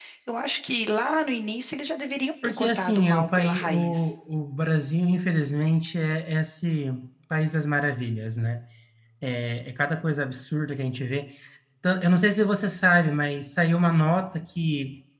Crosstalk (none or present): present